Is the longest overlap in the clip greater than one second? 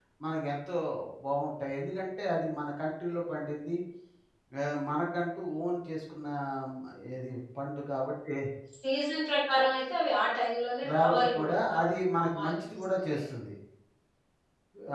Yes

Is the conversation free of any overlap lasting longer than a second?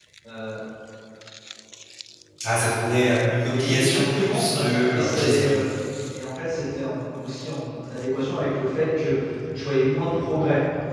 No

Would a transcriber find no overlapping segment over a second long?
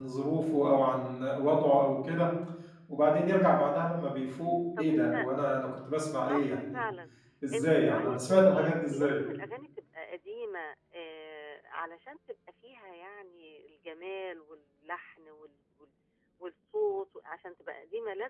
No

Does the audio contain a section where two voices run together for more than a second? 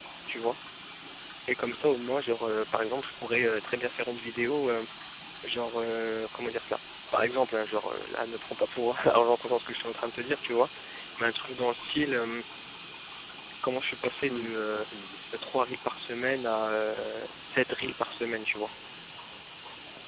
No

